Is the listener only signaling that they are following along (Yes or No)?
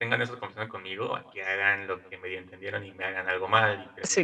No